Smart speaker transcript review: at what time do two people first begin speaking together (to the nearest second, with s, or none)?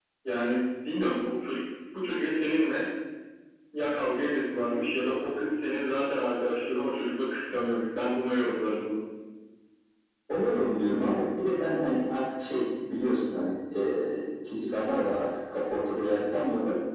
none